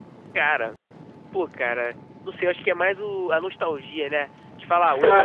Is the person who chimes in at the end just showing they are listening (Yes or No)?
Yes